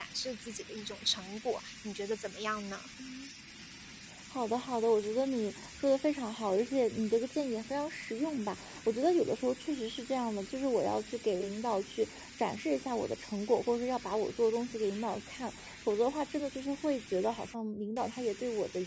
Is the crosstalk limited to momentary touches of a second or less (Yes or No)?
Yes